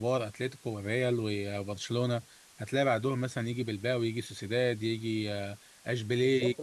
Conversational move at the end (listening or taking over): taking over